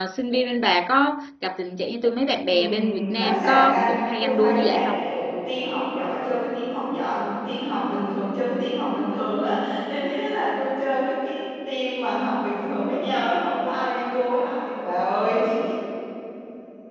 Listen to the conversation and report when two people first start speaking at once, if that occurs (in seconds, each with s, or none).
2.5 s